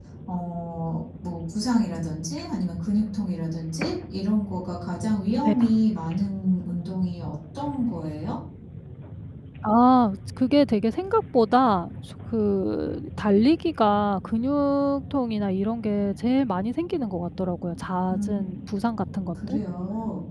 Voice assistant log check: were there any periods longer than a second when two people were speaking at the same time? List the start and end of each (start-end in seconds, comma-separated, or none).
none